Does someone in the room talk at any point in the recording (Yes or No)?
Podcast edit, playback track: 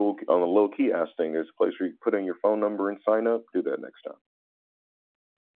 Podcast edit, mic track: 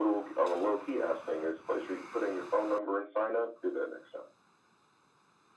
No